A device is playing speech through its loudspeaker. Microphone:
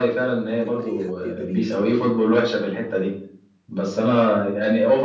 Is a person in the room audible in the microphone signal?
Yes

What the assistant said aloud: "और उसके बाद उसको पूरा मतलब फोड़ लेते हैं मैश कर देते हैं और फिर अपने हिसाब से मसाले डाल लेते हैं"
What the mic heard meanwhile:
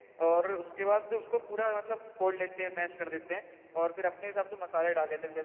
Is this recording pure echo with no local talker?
Yes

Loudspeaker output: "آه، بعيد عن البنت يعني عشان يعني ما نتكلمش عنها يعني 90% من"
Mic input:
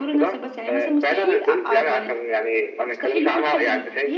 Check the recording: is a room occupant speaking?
Yes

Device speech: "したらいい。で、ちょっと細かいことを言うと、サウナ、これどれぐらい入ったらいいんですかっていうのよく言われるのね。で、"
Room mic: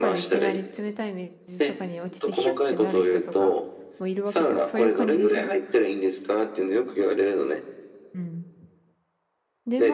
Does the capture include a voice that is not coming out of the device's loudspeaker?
Yes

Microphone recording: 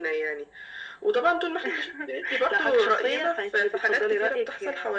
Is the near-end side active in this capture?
No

